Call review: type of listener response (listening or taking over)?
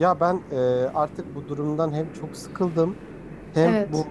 listening